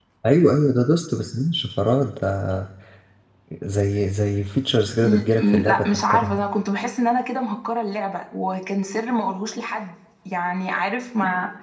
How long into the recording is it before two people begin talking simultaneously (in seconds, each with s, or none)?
5.0 s